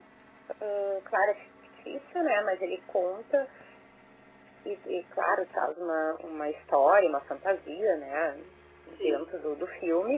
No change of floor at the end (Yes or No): Yes